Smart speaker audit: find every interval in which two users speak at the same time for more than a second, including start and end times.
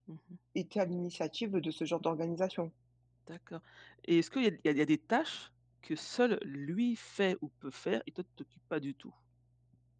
none

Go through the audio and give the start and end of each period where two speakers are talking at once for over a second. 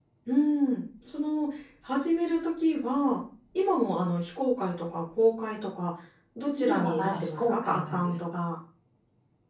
6.6-8.1

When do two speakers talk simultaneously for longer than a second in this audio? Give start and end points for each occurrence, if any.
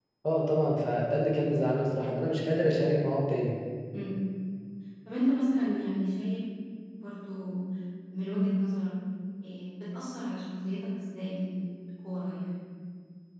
none

